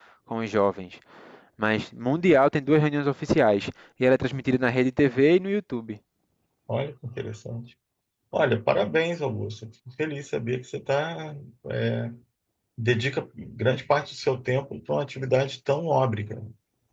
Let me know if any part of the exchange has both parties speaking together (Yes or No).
No